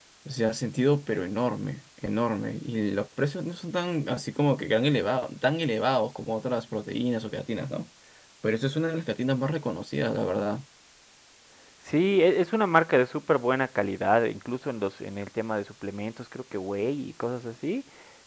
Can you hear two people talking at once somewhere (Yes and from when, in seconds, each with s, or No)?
No